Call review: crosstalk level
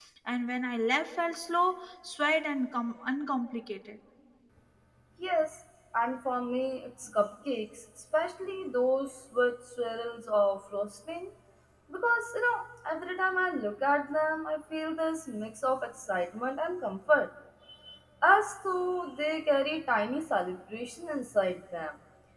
none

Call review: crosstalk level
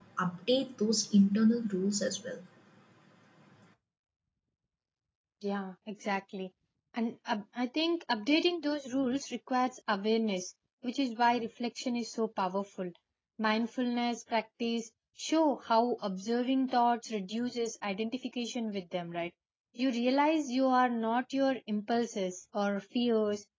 none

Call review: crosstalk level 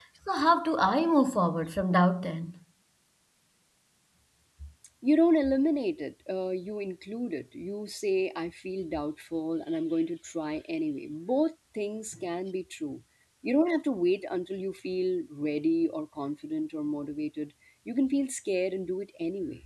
none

